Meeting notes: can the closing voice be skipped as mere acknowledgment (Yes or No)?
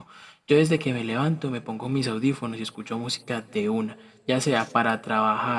Yes